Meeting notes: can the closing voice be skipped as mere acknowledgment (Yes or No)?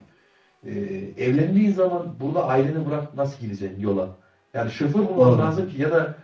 Yes